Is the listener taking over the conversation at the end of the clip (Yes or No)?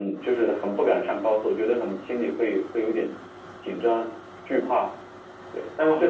Yes